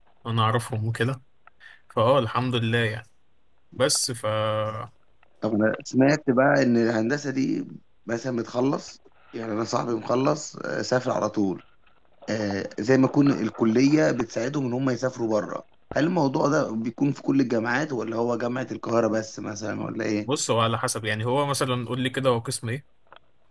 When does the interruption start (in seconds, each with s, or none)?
none